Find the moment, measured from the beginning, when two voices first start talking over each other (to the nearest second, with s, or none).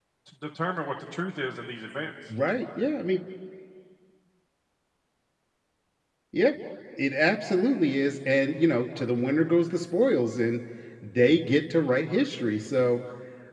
none